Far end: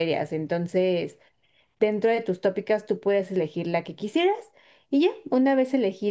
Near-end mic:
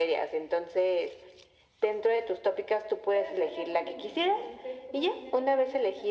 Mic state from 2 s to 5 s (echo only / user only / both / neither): both